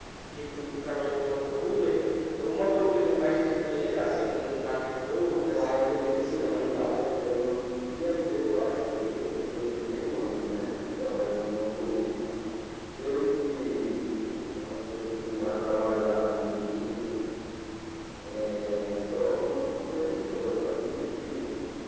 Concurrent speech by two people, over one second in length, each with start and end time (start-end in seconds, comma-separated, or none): 5.2-6.9